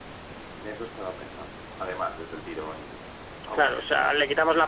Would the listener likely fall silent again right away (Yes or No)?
No